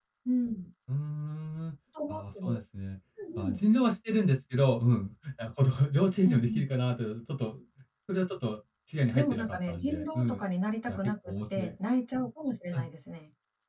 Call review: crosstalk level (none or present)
present